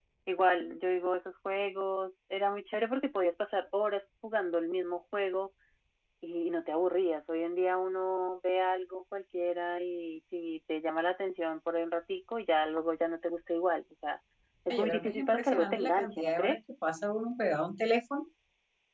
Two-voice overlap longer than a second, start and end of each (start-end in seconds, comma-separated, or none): 14.7-16.6